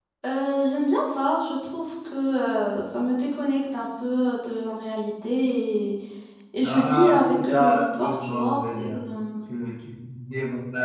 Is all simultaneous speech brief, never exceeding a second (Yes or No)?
No